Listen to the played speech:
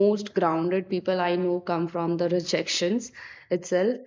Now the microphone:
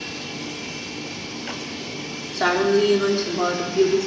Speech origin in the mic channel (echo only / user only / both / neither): user only